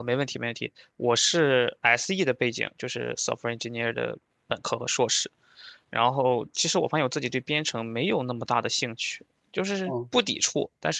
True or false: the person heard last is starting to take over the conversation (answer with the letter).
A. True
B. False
B